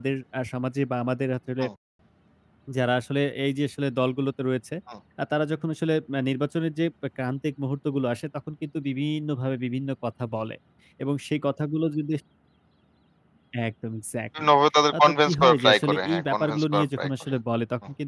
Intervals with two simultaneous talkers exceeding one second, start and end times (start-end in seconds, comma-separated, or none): 15.0-17.3